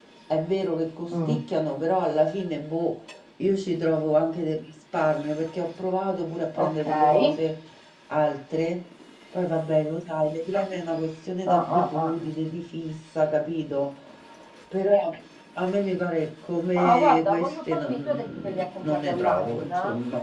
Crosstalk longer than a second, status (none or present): present